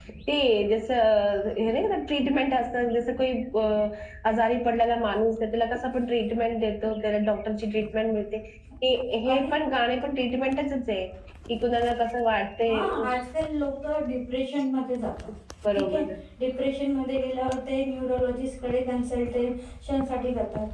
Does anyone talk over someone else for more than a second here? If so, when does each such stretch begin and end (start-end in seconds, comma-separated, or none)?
none